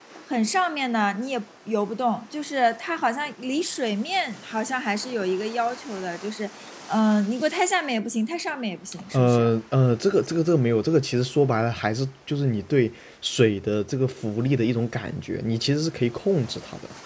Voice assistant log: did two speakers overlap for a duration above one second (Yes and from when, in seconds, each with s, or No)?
No